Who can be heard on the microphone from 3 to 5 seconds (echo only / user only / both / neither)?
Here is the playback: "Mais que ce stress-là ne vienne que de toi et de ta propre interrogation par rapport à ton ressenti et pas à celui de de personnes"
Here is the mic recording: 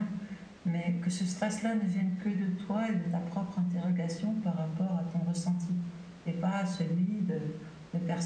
echo only